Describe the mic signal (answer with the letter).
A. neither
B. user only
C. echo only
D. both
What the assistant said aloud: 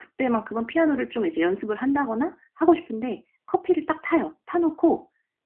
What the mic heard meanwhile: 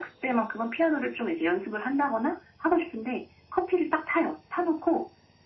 C